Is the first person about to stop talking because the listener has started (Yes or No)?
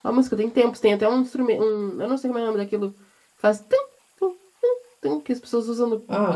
Yes